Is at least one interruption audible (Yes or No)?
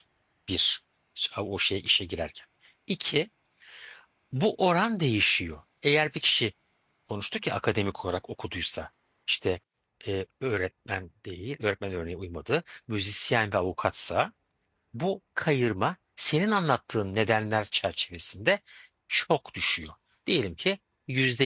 No